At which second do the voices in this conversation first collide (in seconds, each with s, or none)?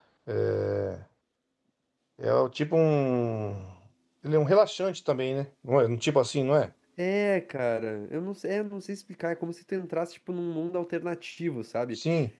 none